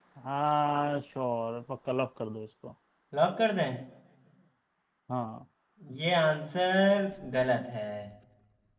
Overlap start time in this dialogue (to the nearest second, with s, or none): none